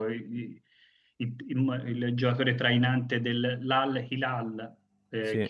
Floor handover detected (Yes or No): No